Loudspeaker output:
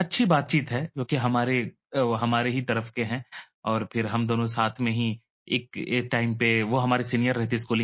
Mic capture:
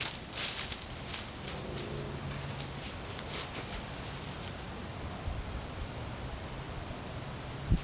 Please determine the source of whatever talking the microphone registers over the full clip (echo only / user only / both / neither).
neither